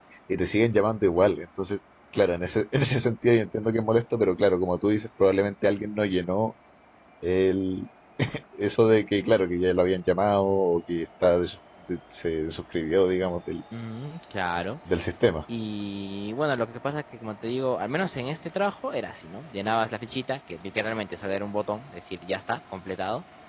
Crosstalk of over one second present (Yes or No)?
No